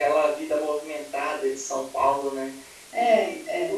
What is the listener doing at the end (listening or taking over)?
listening